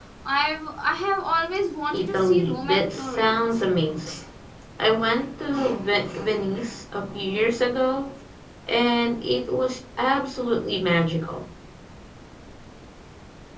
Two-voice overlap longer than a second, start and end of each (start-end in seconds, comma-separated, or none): 1.9-3.4